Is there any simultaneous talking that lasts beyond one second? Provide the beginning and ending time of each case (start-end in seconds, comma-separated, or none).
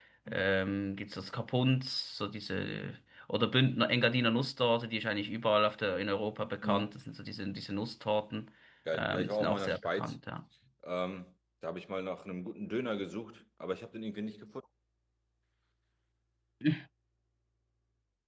8.9-10.1